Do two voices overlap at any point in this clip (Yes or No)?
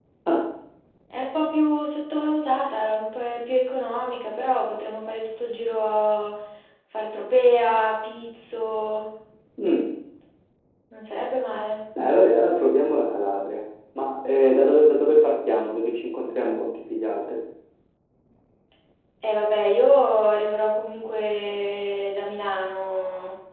No